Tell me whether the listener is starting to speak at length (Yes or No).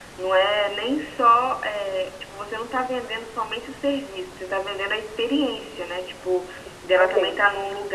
No